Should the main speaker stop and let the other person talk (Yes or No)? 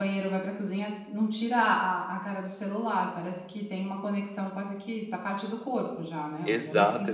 Yes